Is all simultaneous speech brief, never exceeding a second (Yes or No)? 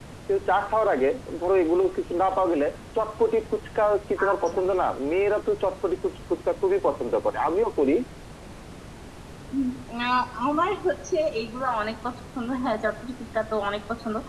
Yes